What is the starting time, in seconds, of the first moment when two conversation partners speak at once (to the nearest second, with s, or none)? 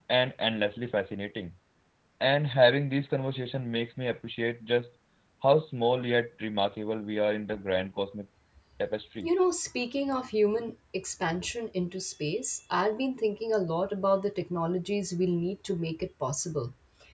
none